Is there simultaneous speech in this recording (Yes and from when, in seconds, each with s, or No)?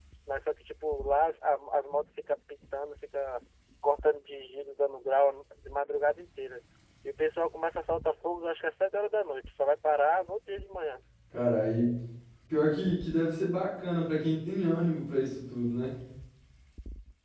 No